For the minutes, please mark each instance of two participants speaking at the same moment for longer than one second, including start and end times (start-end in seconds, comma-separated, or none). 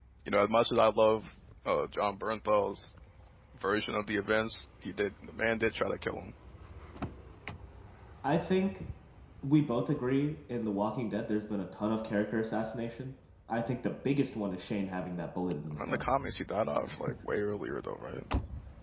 none